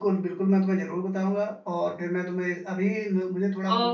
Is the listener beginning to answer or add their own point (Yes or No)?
No